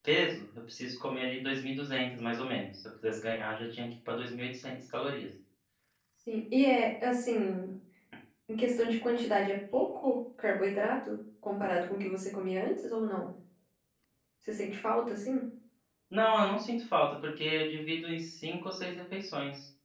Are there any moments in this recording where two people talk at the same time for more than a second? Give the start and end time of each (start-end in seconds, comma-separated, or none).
none